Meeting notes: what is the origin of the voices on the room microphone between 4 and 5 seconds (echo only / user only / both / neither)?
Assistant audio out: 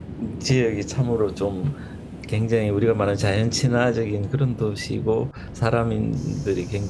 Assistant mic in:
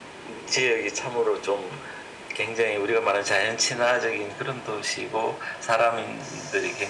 echo only